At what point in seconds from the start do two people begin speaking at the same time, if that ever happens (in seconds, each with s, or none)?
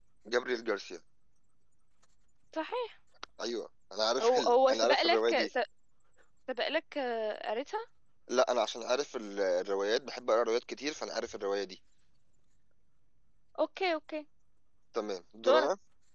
4.2 s